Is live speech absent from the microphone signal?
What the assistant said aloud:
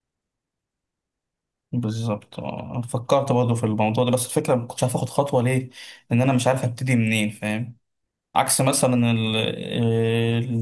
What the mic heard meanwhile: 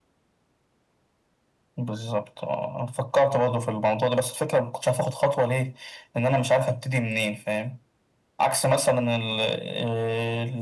Yes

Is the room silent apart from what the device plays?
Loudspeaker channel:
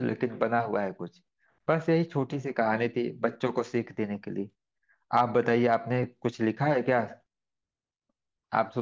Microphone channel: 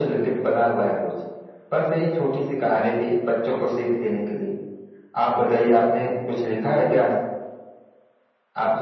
Yes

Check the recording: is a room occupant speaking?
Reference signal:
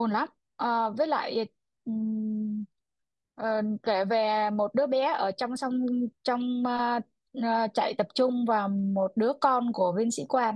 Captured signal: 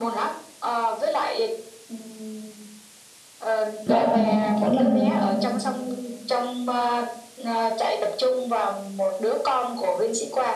Yes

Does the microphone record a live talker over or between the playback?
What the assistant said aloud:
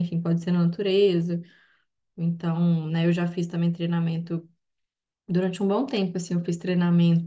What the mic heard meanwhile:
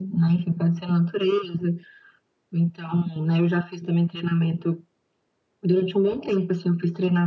No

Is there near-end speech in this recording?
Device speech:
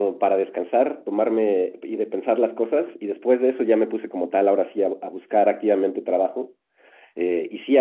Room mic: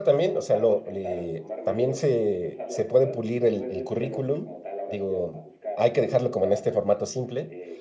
Yes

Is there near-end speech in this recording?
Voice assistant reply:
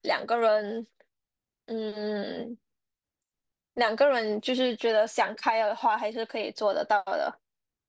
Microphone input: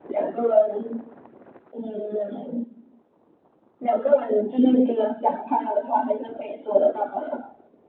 No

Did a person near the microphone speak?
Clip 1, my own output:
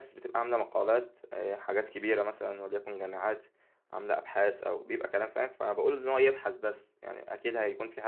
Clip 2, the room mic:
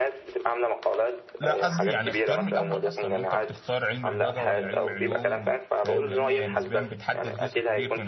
Yes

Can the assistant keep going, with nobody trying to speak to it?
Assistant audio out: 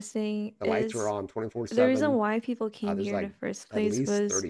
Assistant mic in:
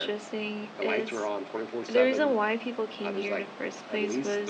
Yes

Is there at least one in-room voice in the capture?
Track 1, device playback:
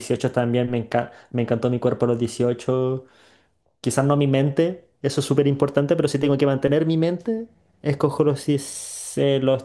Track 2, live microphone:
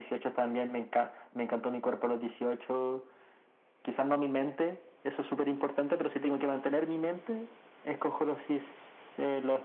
No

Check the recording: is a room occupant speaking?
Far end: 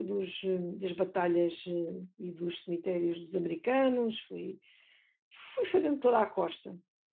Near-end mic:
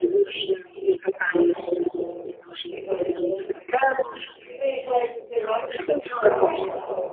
Yes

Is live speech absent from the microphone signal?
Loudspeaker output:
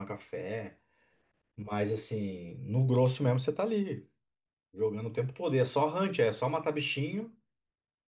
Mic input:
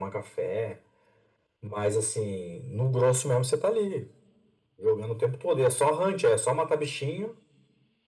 Yes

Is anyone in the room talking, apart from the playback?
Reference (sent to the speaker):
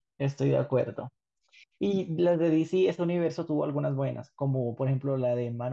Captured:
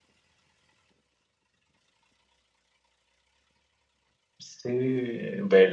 Yes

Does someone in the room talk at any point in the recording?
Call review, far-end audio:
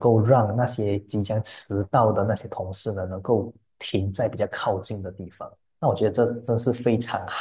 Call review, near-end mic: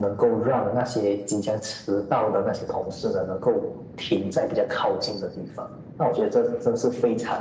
No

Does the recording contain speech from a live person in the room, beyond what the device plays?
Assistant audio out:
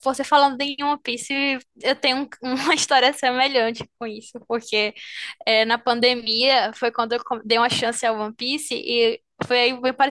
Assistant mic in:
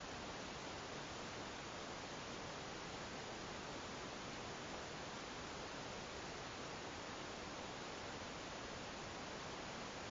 No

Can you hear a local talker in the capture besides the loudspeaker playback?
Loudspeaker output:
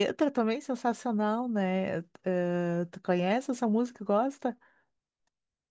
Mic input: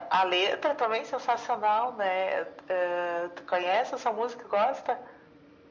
No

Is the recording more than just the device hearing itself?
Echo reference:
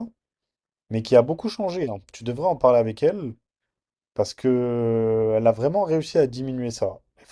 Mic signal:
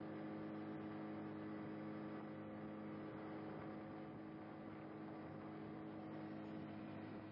No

